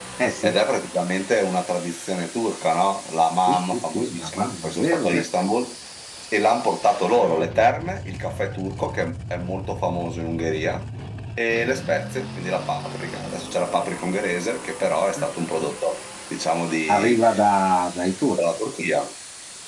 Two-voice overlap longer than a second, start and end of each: 3.5-5.2

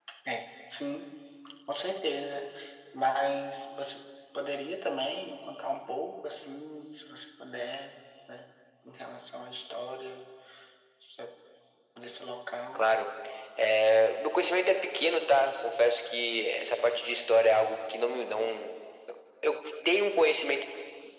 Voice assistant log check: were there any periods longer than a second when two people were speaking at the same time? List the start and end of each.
none

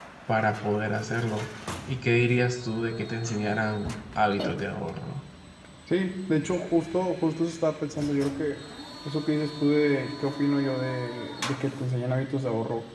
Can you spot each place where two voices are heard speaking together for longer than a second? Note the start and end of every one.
none

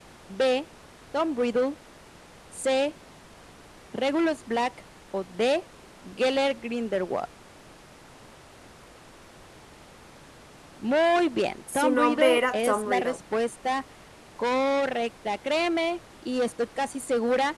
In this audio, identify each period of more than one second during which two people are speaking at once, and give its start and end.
11.7-13.2

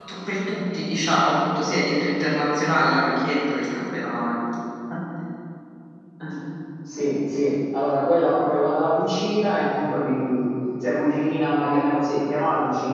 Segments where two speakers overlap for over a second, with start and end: none

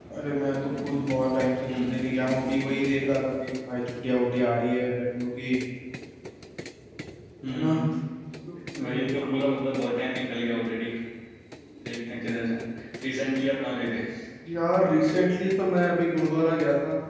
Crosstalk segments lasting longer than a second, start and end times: none

